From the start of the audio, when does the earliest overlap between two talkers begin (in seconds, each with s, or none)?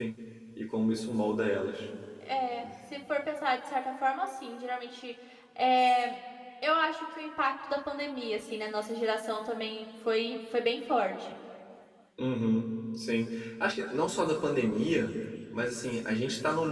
none